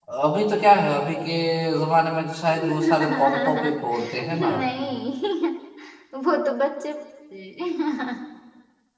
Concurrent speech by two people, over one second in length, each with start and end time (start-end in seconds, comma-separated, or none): 2.5-4.5